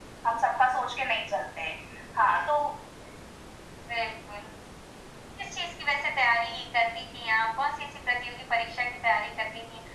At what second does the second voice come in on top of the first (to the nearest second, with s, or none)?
none